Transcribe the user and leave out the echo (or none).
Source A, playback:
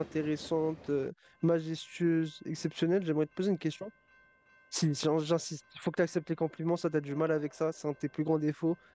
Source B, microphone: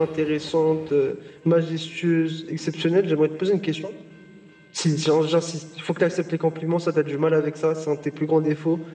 none